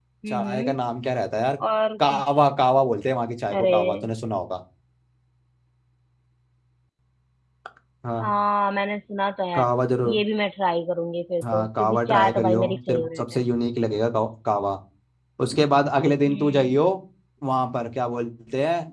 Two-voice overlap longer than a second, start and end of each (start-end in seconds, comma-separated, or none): 11.5-13.2